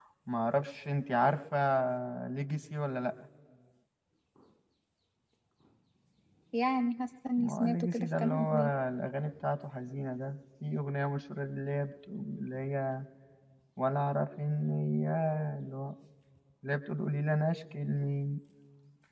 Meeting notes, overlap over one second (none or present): present